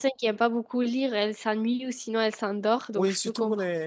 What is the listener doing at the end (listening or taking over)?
taking over